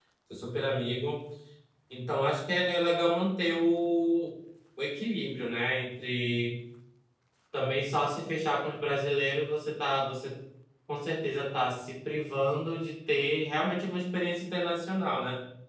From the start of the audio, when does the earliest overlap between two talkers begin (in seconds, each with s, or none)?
none